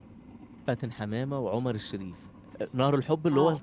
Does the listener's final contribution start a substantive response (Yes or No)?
No